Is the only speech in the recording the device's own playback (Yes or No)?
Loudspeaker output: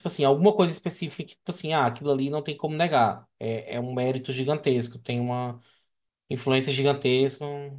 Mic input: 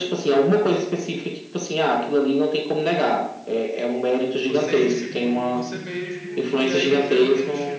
No